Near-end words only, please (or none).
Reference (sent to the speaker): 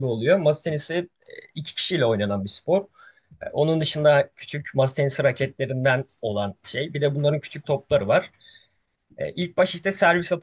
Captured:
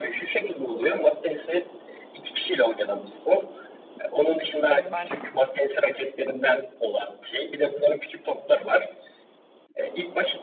Hmm, ben de-